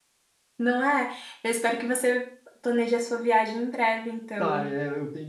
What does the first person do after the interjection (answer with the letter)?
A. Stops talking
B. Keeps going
A